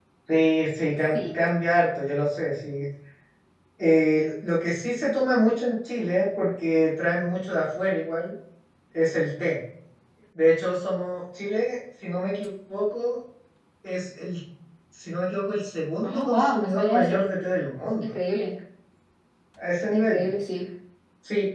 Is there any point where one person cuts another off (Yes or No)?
Yes